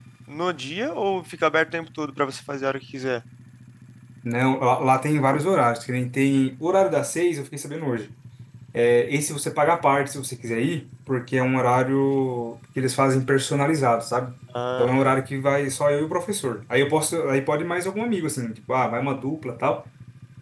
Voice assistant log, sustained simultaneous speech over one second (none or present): none